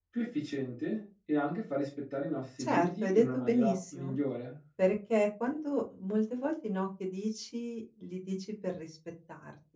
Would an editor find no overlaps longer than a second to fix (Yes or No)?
No